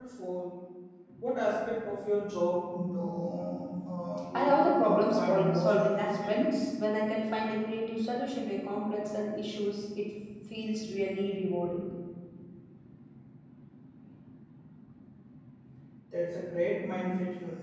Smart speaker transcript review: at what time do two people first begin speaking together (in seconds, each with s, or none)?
4.3 s